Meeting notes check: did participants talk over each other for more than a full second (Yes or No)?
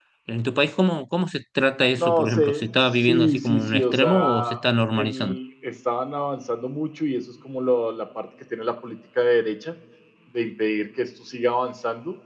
Yes